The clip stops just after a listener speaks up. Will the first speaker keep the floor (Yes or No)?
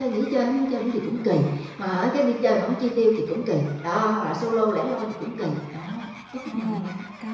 No